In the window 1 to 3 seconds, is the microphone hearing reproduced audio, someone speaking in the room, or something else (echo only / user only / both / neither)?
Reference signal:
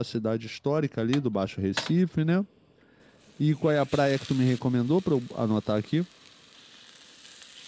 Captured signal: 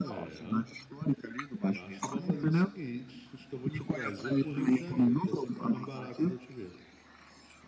both